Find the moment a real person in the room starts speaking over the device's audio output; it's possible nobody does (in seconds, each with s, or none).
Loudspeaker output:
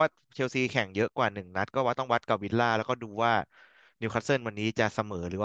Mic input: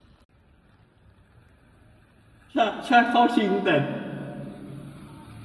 2.5 s